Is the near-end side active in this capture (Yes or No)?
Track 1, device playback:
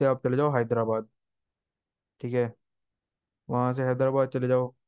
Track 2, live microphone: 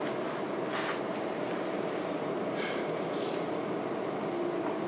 No